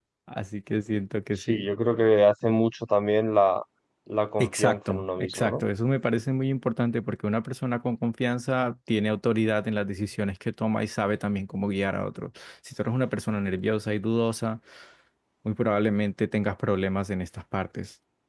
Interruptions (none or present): present